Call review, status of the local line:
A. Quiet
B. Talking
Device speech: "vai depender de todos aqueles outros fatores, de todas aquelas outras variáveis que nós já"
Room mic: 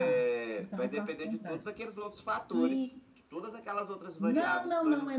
B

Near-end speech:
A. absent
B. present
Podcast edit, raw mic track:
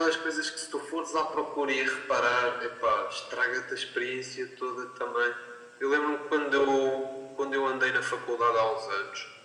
A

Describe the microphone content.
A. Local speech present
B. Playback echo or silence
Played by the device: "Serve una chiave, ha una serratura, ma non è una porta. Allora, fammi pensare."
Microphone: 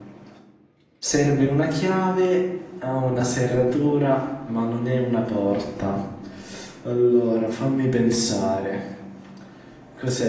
B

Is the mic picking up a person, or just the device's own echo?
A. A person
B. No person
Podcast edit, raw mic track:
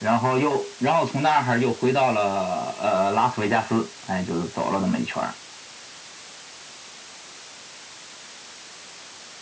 B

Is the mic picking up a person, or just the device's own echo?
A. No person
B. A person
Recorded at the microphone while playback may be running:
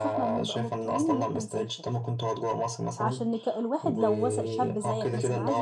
B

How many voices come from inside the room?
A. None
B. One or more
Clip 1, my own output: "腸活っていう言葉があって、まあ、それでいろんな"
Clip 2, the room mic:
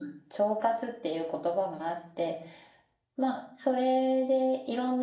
A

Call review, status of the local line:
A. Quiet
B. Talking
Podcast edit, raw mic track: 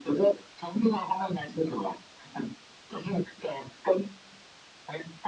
A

